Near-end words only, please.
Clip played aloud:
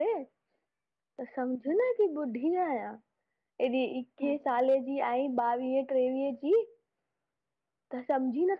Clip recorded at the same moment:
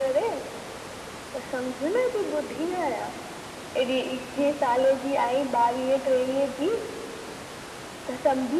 none

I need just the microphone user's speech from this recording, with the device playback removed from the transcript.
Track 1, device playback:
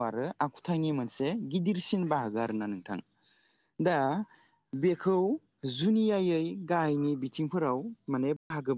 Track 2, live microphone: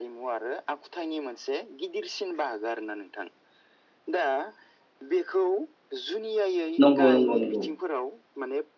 नंगौ नंगौ नंगौ

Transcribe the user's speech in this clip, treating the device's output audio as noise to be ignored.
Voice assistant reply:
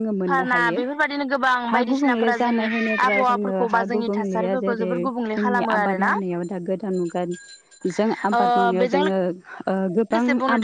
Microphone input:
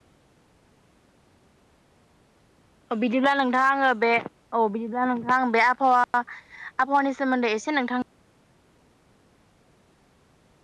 अ बिदिब्ला नोंथां आङो बे औ बिदिब्ला नोंथां आं बे आबहावा आबहावानि सोमोन्दै एसे नोंथां

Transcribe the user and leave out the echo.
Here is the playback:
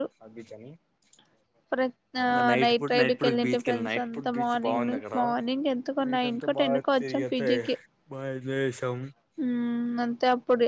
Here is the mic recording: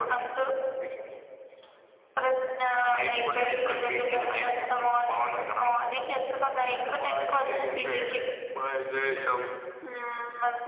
none

